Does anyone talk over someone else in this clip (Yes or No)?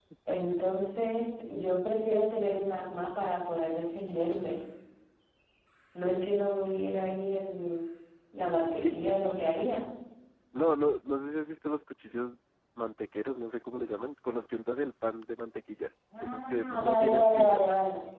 Yes